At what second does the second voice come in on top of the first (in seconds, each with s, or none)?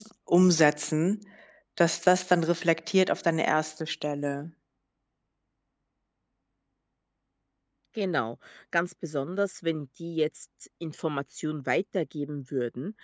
none